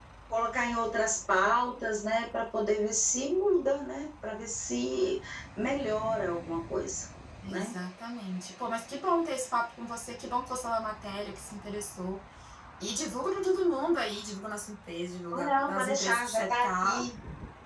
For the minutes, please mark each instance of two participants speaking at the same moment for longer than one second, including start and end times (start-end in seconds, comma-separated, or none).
15.3-17.0